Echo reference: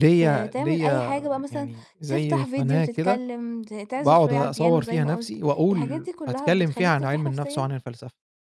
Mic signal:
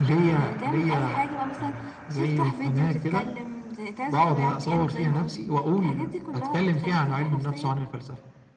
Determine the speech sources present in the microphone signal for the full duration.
echo only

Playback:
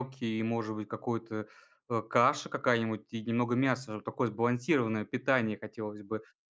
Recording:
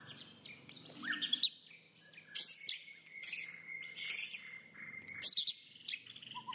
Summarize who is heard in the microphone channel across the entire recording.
neither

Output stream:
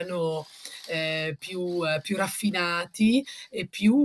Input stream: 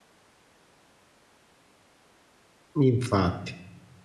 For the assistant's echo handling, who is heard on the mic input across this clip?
user only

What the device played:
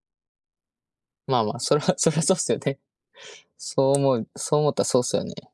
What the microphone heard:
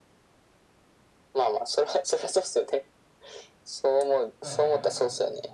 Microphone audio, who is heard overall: both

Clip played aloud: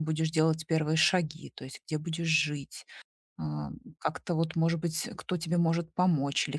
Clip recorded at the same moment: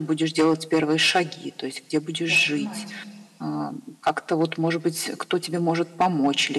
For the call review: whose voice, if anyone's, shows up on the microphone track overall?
both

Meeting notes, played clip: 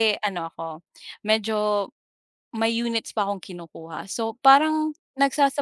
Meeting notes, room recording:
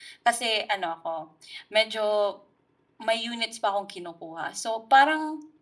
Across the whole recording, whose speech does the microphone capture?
echo only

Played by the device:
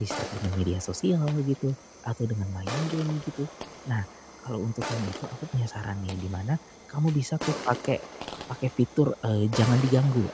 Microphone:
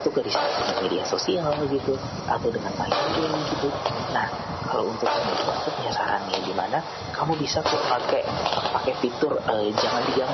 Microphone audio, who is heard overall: echo only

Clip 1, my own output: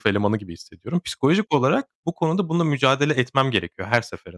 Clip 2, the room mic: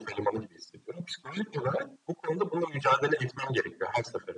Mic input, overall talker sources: echo only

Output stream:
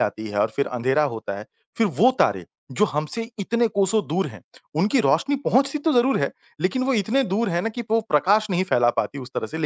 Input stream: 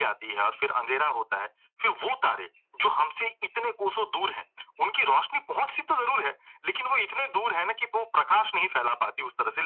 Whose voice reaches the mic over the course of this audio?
echo only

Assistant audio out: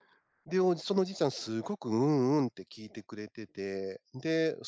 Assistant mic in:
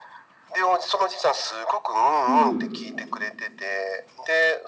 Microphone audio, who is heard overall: both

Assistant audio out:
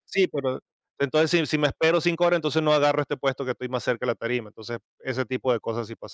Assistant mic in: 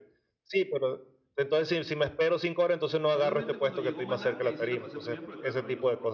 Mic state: both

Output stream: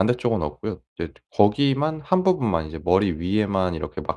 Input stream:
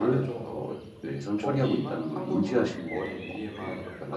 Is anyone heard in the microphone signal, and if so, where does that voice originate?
both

